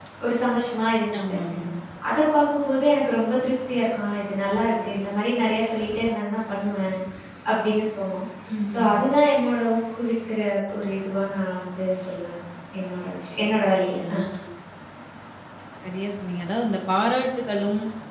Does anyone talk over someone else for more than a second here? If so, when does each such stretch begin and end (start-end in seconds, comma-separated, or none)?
none